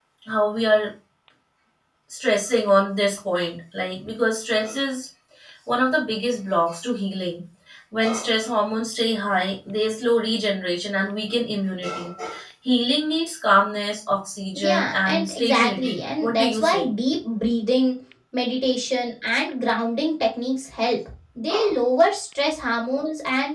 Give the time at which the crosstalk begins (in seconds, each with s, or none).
14.6 s